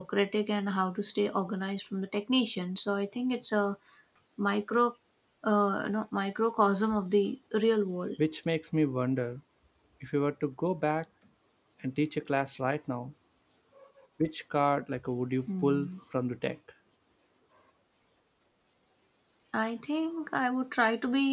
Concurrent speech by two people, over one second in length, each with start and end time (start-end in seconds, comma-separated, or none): none